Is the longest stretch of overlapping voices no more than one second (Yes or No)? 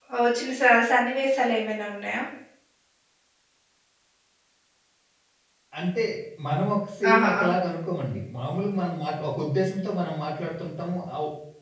Yes